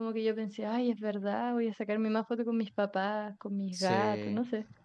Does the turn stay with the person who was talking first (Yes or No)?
No